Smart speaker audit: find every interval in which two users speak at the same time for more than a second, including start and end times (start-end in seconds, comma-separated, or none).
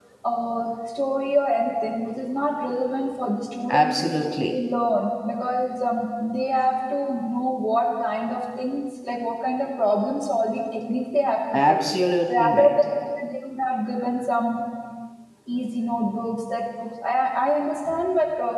none